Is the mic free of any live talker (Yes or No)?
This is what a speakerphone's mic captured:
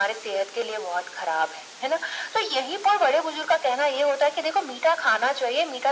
Yes